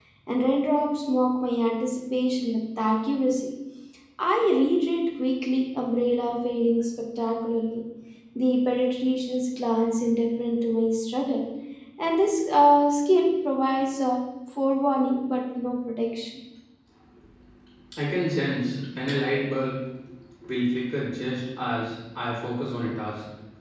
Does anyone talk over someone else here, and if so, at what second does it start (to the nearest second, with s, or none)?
none